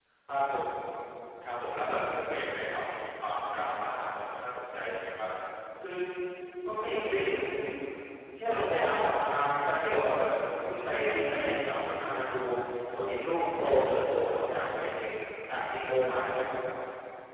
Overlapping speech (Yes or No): No